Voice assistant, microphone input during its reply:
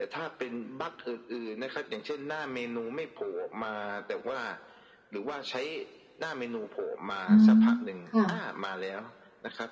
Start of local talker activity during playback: 7 s

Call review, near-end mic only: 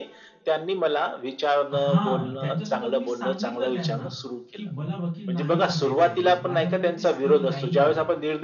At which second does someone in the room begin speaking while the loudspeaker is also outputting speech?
2 s

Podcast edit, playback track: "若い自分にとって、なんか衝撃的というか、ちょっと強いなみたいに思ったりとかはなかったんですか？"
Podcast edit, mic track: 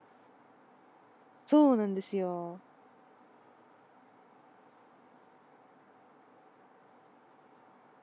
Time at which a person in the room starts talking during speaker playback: 1 s

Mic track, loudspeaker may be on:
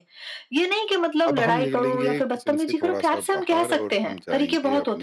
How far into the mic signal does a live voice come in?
1 s

